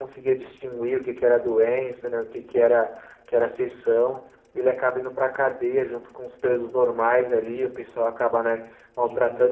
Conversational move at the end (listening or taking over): listening